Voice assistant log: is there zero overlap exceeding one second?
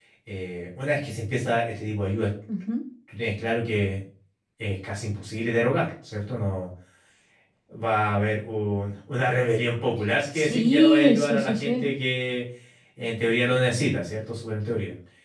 No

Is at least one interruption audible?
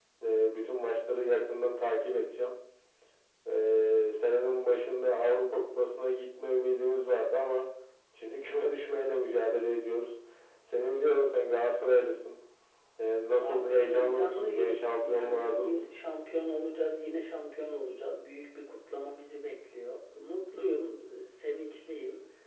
Yes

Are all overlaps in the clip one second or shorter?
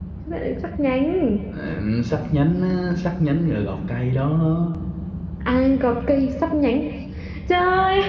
Yes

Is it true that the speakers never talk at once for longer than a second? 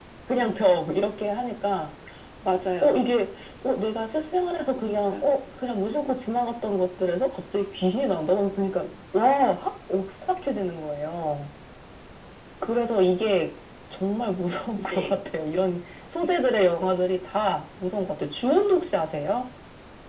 Yes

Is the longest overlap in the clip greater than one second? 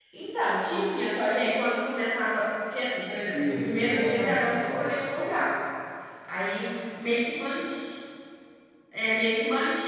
Yes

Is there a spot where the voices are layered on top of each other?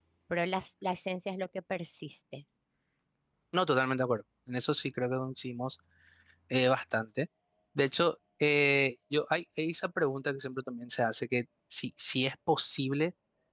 No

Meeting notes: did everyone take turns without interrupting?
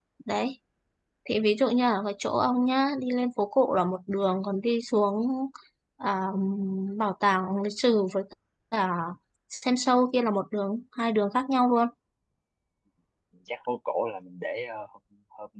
Yes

